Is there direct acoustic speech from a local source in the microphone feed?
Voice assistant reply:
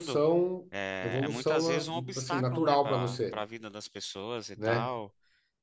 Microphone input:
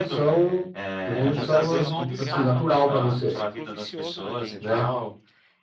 Yes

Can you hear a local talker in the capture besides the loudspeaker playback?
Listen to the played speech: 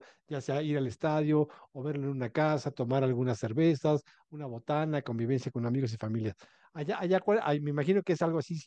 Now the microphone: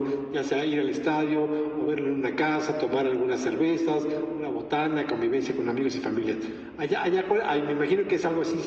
No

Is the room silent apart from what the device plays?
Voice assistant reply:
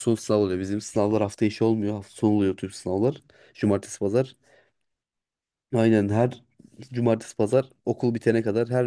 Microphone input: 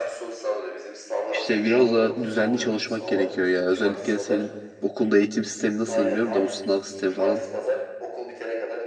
No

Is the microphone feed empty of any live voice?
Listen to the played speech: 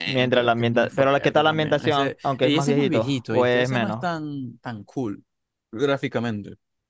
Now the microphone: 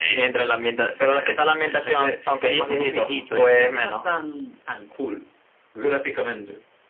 Yes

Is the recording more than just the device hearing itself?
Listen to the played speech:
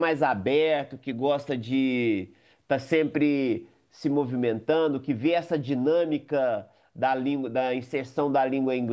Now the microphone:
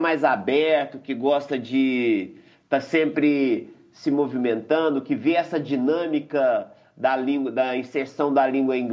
No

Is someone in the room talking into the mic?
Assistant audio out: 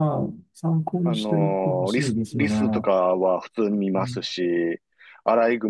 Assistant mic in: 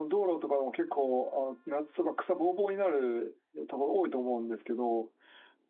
Yes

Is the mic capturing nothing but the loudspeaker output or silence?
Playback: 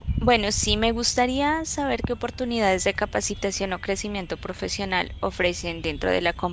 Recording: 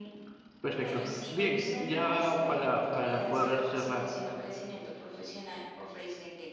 No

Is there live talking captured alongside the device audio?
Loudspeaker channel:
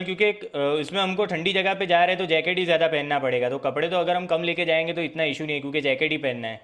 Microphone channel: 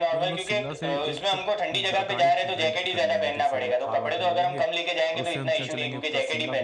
Yes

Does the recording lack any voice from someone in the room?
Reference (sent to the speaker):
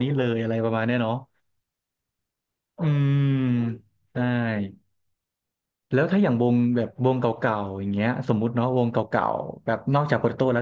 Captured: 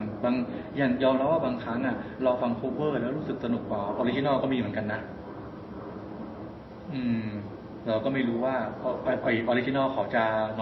No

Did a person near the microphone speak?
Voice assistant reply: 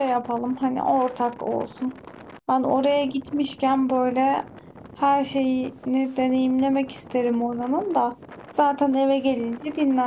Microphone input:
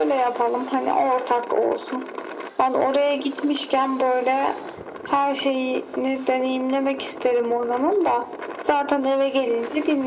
No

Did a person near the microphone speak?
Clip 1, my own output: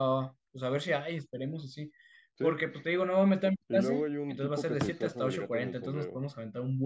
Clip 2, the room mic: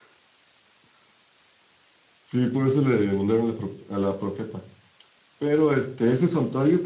Yes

